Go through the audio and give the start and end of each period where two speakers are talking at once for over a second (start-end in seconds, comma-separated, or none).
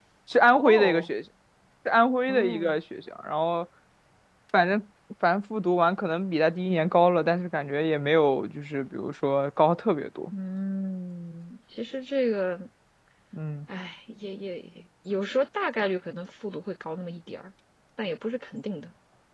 none